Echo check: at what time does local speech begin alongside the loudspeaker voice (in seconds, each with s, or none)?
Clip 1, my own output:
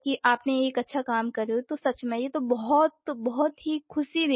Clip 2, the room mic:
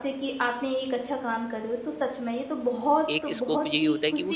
3.1 s